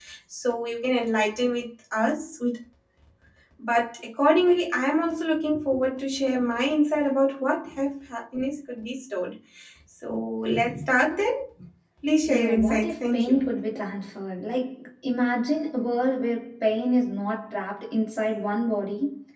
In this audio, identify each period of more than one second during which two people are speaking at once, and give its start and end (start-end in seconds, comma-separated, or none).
12.3-13.5